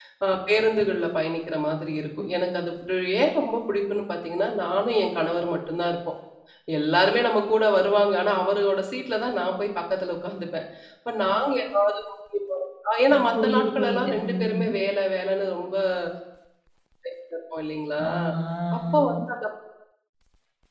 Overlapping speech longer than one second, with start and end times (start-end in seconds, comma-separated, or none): 13.1-14.7